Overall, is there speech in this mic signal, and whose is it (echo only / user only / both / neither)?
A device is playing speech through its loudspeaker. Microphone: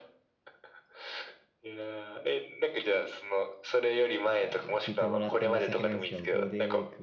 both